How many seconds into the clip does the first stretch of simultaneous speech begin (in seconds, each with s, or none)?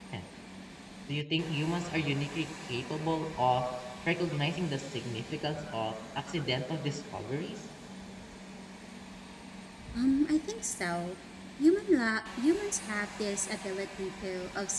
none